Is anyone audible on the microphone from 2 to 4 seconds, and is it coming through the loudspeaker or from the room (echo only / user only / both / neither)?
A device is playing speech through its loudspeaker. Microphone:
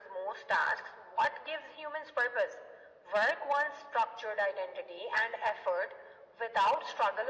echo only